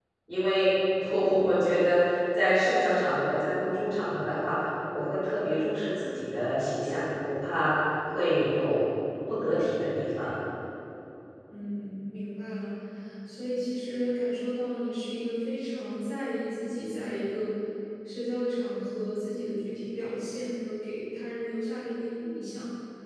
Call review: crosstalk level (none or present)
none